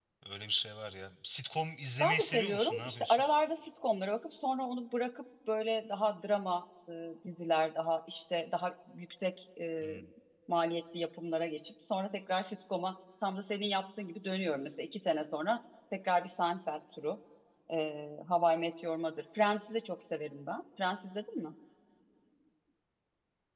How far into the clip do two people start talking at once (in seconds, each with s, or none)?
2.0 s